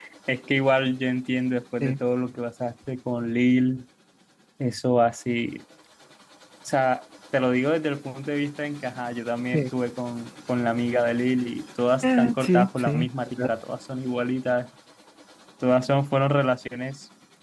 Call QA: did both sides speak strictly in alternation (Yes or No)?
No